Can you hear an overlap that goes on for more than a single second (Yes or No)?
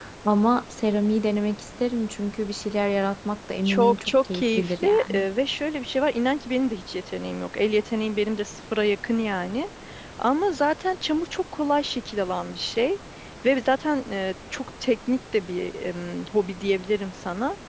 Yes